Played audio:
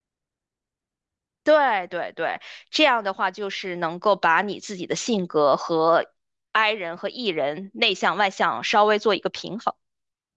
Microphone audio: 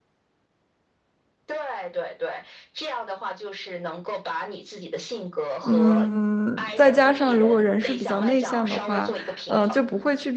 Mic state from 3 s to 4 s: echo only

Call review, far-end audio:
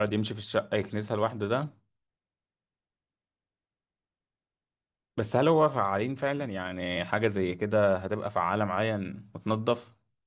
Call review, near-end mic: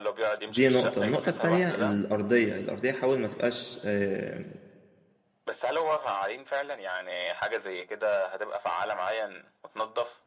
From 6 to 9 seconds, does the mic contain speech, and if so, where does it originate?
echo only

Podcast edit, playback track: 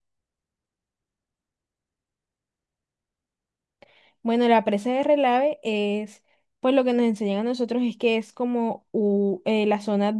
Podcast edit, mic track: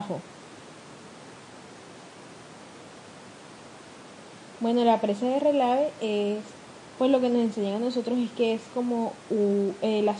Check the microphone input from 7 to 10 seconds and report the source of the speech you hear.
echo only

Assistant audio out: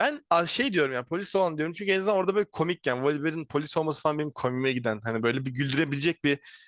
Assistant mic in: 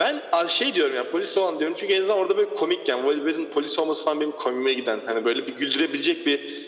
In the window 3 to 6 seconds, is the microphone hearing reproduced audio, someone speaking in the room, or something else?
echo only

